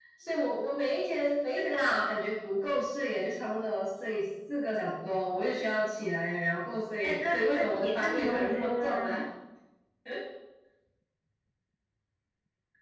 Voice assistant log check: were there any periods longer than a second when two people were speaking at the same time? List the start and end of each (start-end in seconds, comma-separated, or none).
7.0-9.2